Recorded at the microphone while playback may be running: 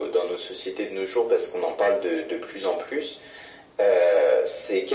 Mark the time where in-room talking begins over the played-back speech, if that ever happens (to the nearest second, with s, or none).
none